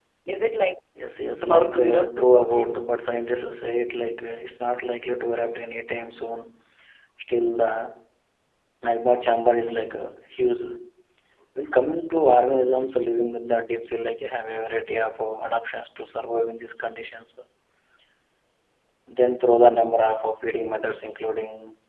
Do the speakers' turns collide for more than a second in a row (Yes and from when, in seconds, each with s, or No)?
Yes, from 1.4 s